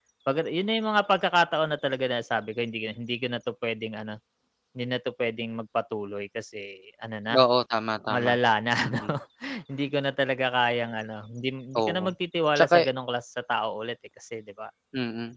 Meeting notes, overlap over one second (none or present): none